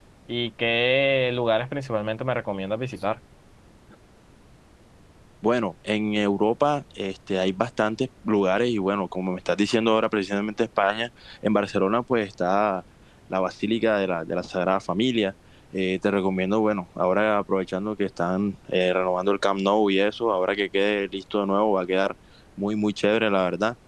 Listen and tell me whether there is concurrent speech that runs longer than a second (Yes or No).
No